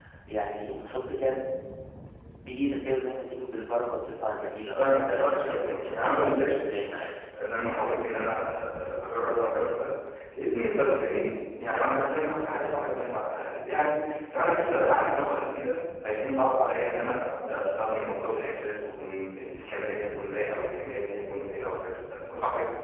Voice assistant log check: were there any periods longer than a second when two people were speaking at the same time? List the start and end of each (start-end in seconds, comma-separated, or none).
4.7-6.5